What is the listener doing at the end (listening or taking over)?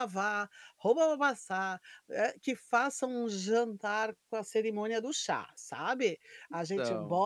listening